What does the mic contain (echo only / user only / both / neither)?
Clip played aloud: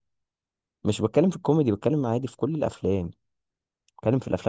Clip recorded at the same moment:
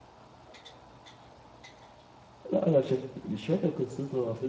user only